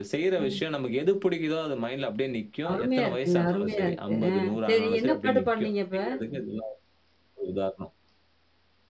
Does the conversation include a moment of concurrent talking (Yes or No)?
Yes